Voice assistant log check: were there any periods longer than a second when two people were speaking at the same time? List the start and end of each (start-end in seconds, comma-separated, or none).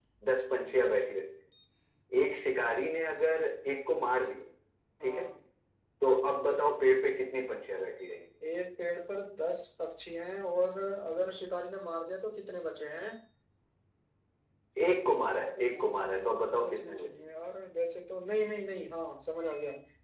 15.1-17.3